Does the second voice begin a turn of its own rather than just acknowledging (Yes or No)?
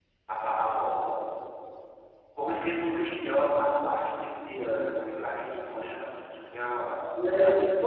Yes